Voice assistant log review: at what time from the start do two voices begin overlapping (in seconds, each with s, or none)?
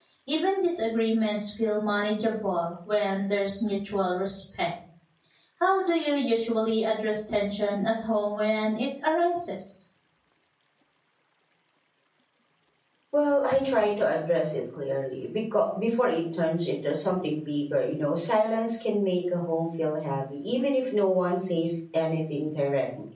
none